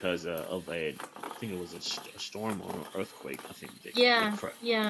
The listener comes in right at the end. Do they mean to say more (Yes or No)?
Yes